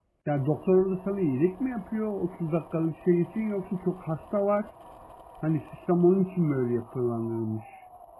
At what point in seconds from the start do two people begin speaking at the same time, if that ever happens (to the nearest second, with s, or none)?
none